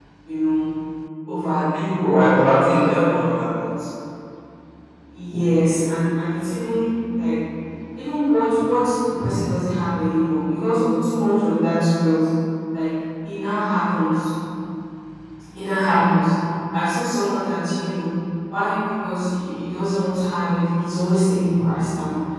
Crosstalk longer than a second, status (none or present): present